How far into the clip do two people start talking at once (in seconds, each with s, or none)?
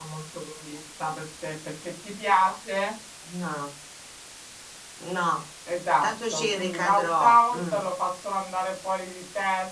6.0 s